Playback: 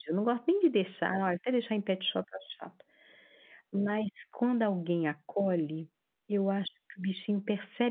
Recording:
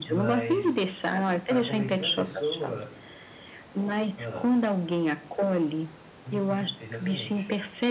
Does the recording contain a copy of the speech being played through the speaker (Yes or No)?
Yes